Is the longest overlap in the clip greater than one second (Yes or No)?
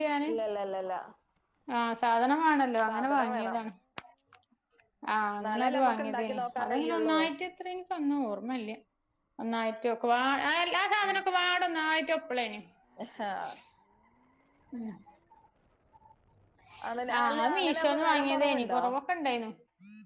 Yes